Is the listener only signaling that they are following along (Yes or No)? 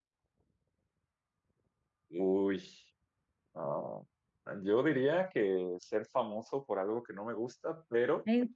Yes